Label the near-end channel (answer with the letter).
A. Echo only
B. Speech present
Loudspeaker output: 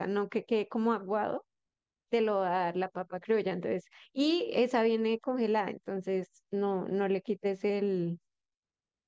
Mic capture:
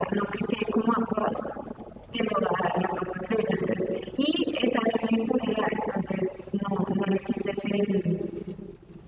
A